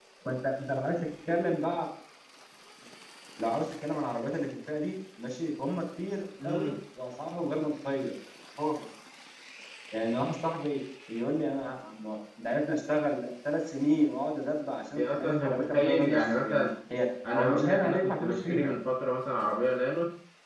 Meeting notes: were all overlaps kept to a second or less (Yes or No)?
No